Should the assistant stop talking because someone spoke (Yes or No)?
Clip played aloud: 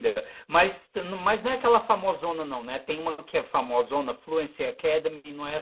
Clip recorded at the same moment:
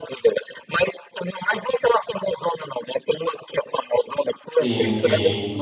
Yes